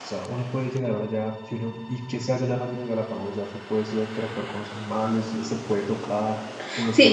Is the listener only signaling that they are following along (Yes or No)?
No